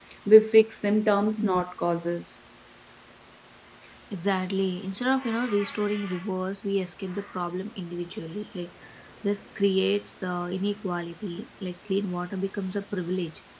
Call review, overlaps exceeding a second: none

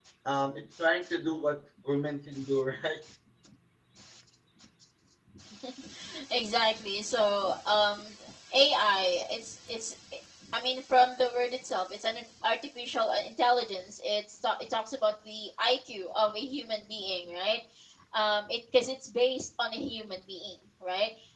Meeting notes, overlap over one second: none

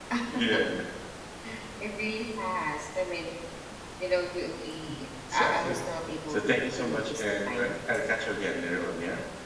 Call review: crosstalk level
present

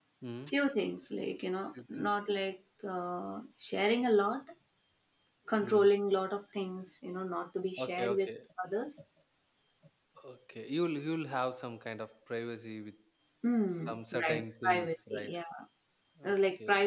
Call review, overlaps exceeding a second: present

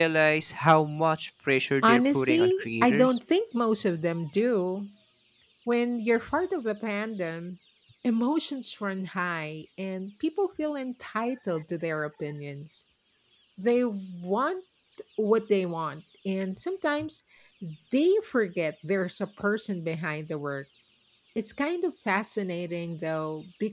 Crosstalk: present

